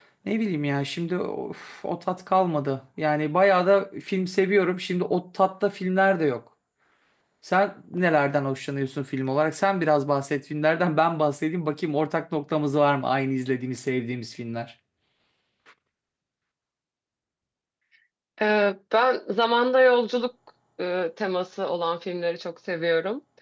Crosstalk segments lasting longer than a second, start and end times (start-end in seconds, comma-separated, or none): none